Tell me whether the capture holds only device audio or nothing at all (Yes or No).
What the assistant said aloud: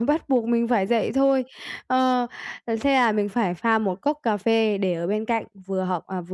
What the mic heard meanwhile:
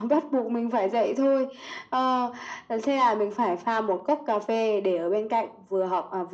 Yes